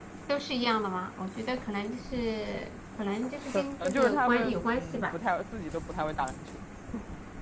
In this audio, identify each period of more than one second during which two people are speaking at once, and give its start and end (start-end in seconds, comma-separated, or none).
3.5-5.2